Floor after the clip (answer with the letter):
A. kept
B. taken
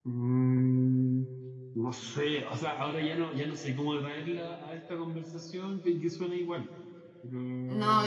B